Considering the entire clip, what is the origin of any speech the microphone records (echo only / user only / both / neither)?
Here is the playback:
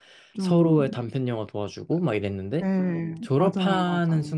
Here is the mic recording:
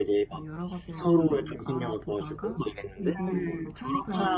both